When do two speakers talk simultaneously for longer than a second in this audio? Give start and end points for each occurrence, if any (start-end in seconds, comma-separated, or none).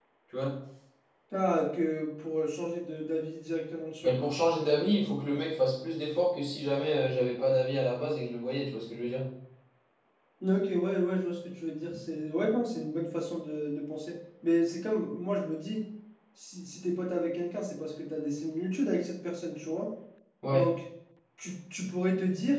none